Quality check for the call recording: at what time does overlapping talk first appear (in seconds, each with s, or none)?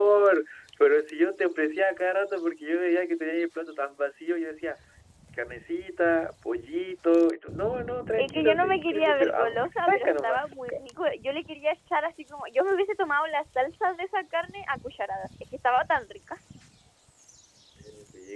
8.2 s